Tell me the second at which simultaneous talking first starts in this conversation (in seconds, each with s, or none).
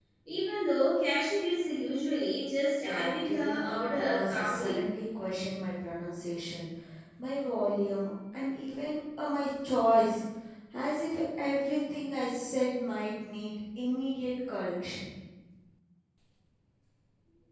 2.8 s